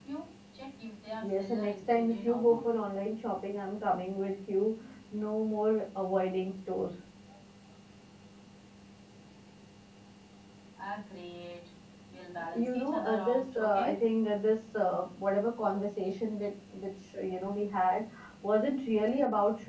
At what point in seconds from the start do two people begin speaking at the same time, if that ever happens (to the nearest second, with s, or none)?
1 s